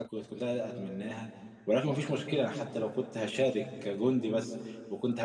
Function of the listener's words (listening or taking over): listening